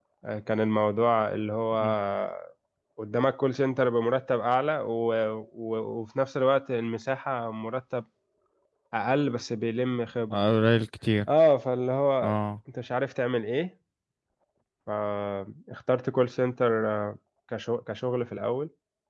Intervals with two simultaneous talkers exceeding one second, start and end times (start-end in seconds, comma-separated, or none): none